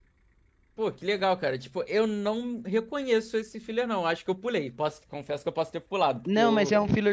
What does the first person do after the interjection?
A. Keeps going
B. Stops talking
B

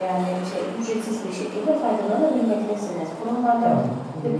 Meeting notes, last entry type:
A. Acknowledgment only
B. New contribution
B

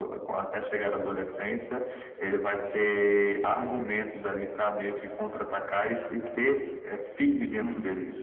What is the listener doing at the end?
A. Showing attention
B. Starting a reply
B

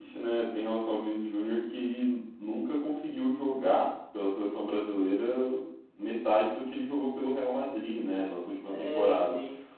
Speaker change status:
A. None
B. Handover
A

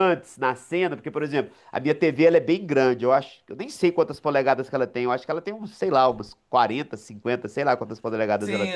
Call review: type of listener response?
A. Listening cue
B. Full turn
B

